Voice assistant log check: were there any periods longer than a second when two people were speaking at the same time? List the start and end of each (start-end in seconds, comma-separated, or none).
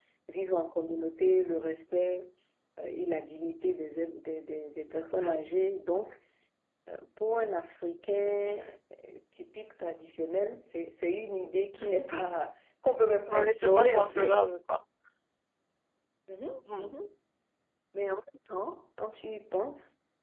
13.2-14.5